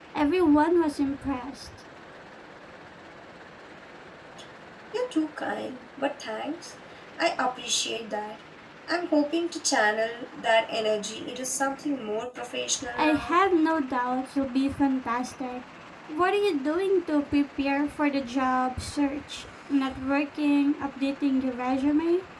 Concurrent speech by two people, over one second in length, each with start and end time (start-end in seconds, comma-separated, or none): none